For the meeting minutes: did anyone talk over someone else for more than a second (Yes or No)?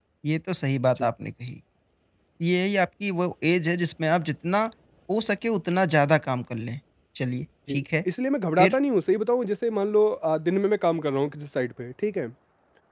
No